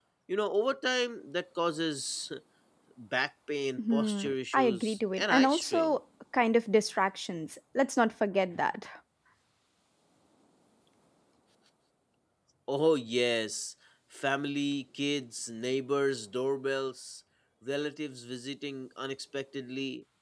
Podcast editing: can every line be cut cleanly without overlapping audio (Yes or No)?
No